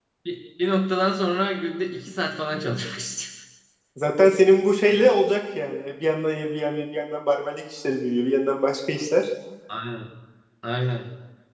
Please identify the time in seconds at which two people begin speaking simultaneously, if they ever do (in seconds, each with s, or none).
none